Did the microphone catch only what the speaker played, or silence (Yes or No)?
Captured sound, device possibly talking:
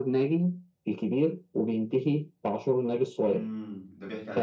No